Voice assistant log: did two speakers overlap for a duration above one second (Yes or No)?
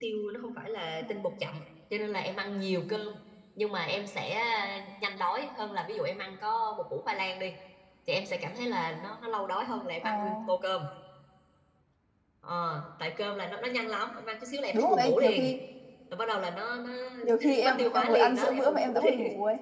Yes